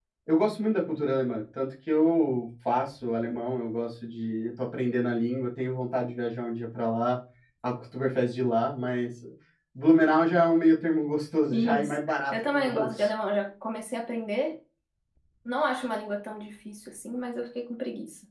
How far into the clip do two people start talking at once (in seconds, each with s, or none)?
11.5 s